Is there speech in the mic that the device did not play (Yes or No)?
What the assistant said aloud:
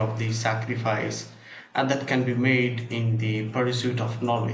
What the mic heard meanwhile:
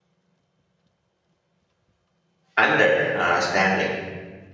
Yes